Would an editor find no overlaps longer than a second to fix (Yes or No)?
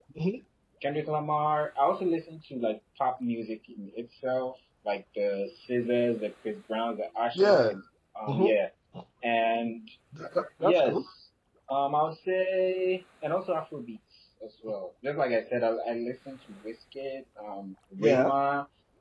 Yes